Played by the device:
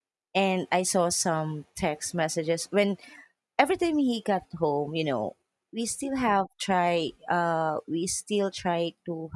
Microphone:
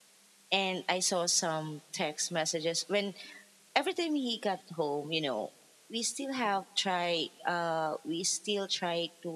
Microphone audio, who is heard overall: echo only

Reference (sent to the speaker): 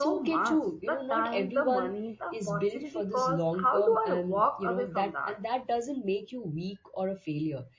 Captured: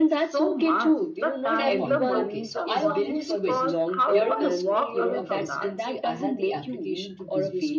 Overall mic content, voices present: both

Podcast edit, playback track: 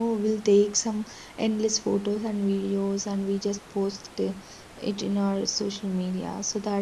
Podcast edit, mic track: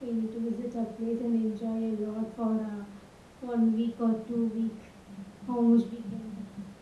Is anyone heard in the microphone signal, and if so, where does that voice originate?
user only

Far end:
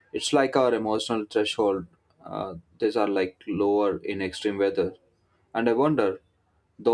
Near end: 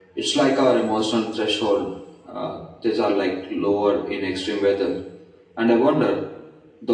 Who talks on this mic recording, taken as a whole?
echo only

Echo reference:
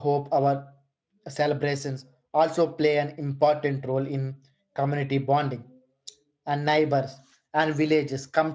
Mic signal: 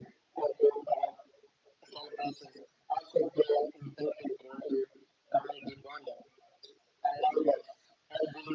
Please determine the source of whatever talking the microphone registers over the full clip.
echo only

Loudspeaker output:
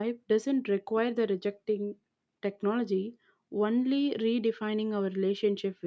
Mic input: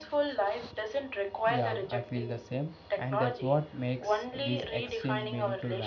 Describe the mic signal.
both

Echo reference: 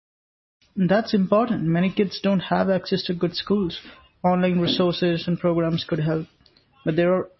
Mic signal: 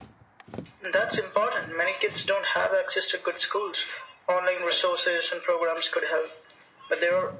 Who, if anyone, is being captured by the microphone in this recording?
echo only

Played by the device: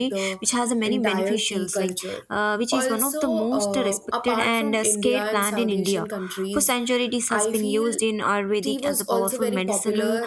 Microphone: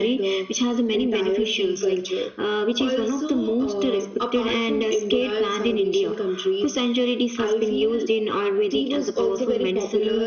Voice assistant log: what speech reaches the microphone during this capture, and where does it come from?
echo only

